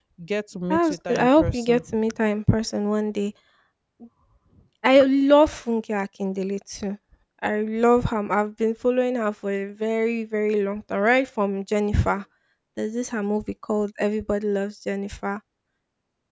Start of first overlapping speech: 0.7 s

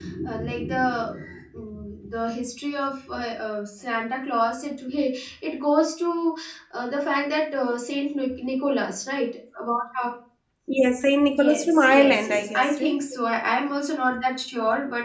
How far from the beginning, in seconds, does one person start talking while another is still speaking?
11.3 s

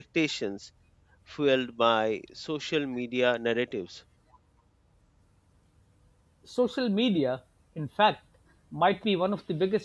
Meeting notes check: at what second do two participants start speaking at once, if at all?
none

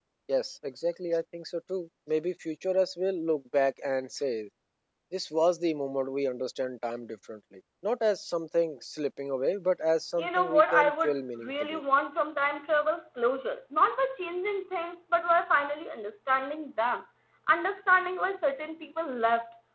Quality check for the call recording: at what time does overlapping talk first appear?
10.2 s

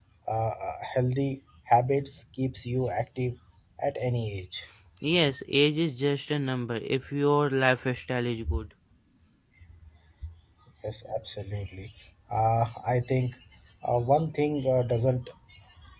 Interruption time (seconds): none

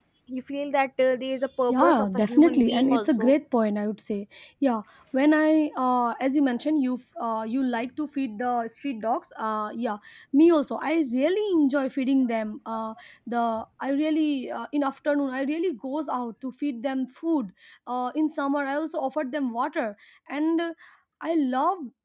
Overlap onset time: 1.7 s

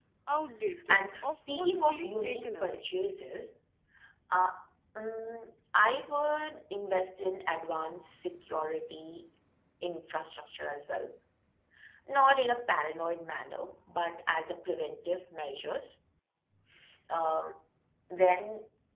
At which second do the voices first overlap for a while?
0.9 s

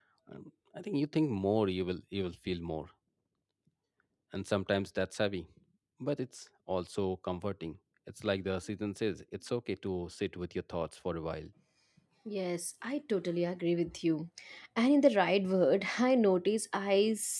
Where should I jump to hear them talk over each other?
none

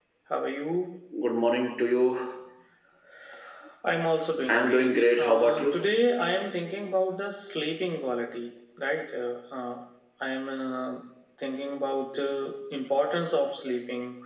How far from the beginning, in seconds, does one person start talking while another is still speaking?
4.5 s

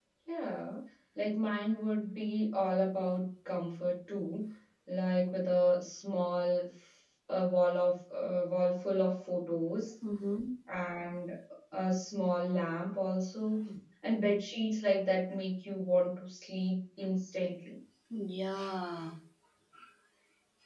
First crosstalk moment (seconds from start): none

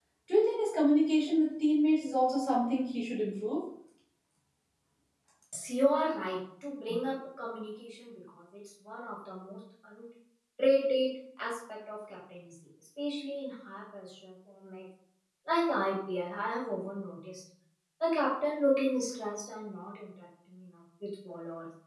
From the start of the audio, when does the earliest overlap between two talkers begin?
none

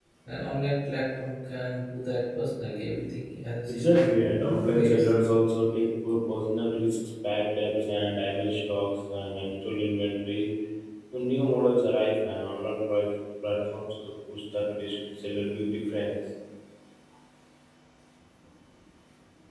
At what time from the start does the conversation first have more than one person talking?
3.7 s

